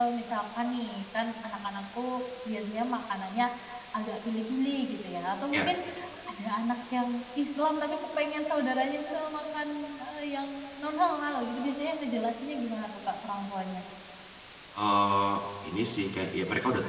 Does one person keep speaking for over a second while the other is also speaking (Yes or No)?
No